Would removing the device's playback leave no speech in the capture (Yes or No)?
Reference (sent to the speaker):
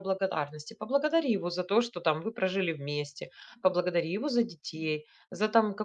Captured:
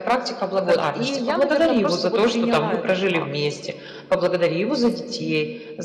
No